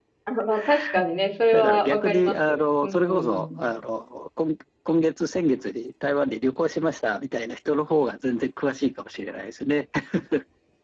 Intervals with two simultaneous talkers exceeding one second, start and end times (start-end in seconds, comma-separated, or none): 1.5-3.6